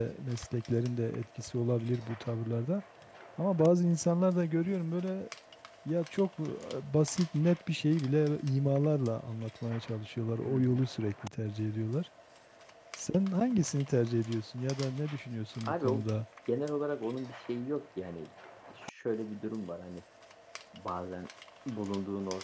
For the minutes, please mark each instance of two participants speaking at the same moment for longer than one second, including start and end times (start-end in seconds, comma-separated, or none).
none